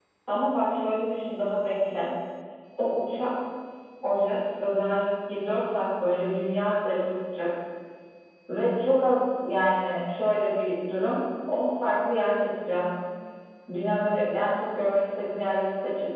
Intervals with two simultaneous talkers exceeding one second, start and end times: none

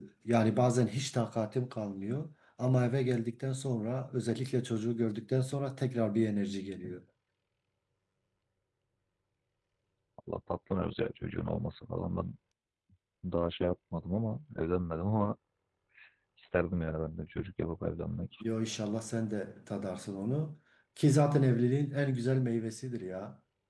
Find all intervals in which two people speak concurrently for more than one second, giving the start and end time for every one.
none

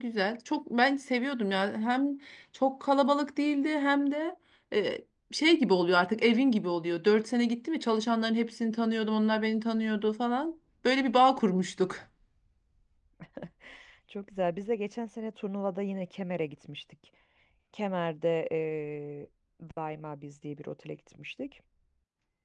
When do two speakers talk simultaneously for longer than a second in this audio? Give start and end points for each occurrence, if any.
none

